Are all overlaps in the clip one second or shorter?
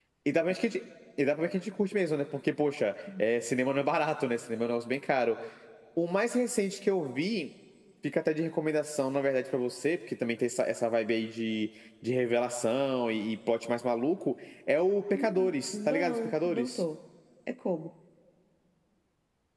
No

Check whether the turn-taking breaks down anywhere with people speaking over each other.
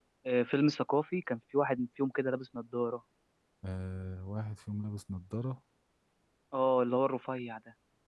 No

